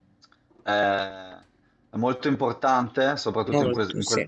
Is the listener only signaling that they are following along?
Yes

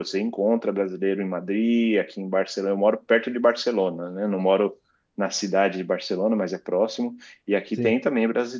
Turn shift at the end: No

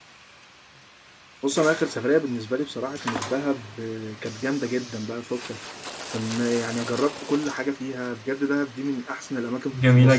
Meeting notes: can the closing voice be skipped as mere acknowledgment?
No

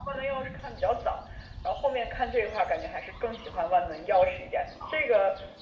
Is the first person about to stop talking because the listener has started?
No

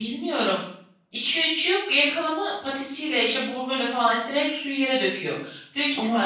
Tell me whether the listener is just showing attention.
Yes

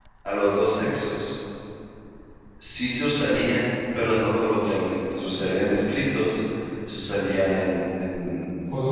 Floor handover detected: No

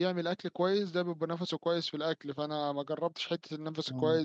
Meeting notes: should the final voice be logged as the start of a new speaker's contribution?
No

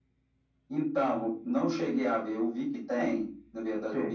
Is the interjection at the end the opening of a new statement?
No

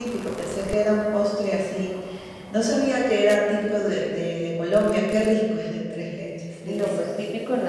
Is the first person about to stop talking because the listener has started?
Yes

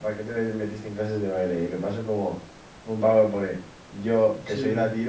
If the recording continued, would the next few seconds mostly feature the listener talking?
No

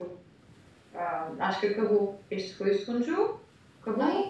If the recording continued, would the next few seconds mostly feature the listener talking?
No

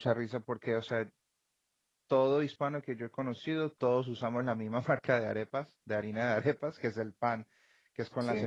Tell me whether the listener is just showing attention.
Yes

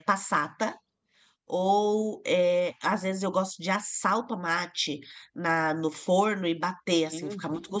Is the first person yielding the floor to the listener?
Yes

